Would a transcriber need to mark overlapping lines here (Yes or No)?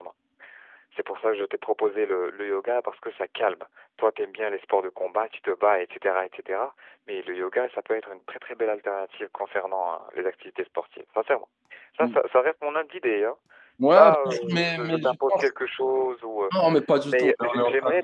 Yes